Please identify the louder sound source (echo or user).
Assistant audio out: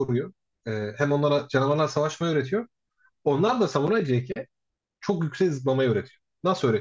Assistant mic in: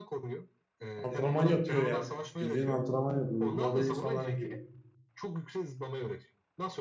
user